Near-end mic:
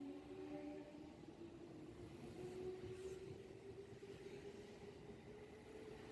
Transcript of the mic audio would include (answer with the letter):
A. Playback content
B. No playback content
B